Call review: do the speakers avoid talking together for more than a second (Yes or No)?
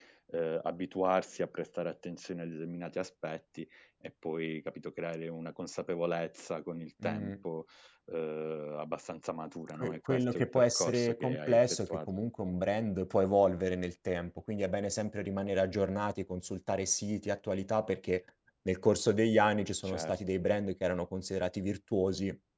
No